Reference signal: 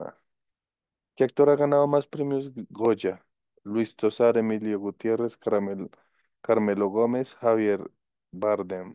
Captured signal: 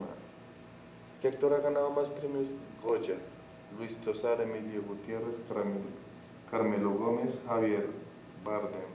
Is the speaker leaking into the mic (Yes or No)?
Yes